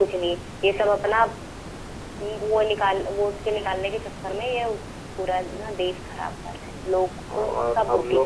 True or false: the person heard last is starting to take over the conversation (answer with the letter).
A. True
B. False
A